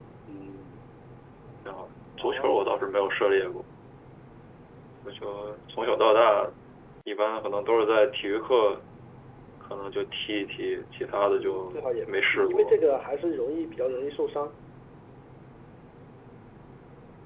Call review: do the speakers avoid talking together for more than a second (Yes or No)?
No